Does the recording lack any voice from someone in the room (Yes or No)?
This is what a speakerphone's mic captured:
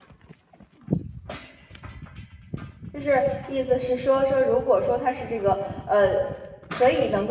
No